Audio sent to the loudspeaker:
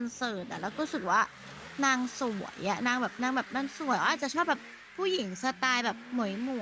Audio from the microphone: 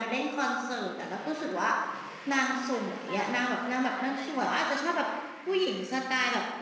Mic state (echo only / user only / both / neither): both